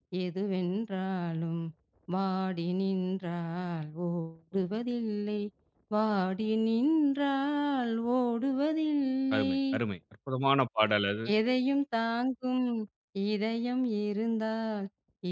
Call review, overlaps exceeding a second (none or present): none